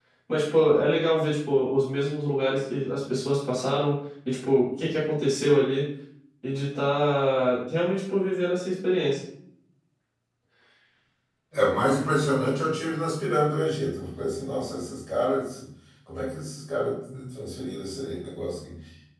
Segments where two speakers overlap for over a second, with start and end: none

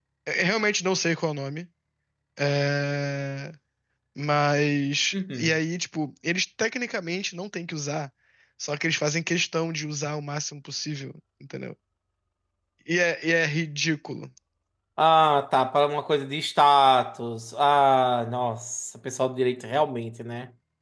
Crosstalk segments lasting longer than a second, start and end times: none

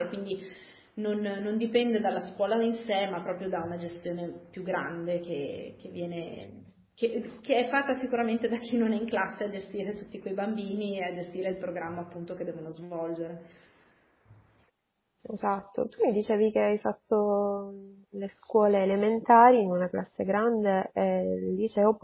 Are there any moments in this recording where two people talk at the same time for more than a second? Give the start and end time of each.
none

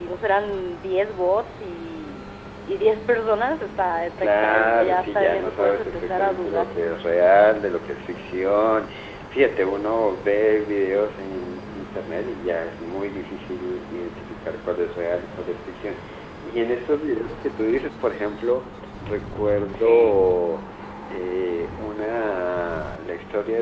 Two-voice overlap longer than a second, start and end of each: 4.2-6.7

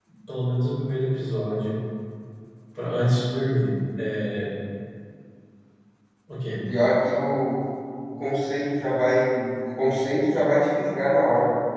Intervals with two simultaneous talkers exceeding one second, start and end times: none

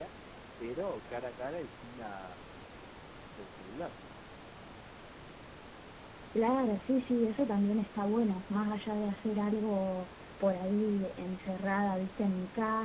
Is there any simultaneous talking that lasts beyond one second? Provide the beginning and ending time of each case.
none

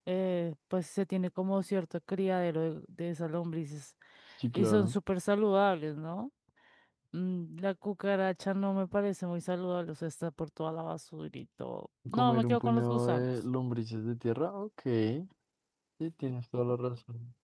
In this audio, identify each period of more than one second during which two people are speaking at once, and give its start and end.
12.1-13.3

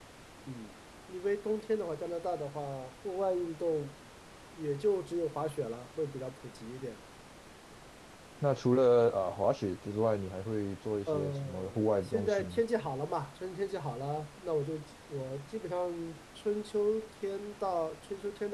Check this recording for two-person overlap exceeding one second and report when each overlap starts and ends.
11.1-12.6

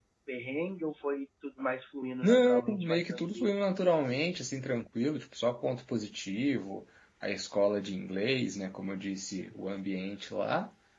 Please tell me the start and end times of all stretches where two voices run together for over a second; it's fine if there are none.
2.2-3.5

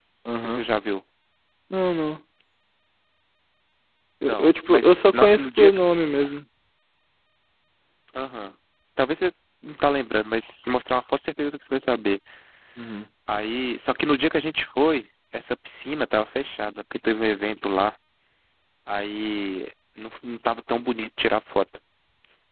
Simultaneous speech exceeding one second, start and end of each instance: 4.3-5.8

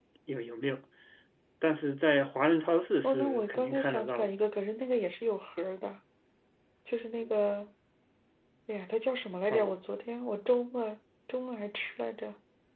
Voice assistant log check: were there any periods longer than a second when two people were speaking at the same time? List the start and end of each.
3.0-4.3

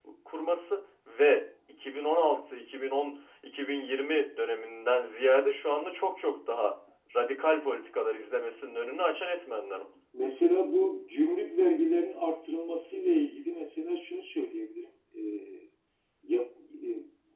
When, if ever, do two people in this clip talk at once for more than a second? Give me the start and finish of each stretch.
none

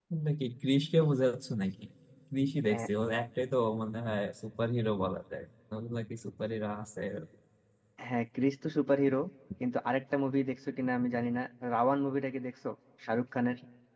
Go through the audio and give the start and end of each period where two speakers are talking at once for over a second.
none

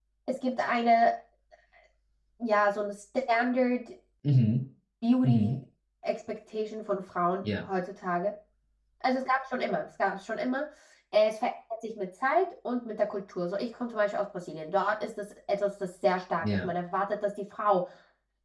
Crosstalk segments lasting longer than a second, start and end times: none

